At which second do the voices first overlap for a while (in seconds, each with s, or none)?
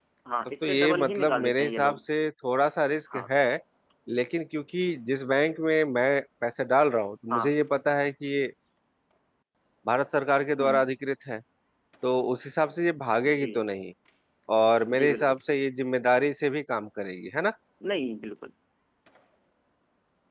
0.6 s